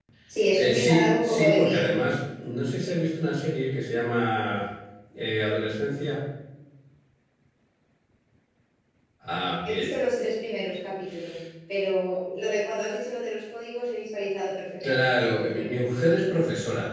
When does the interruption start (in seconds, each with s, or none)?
0.5 s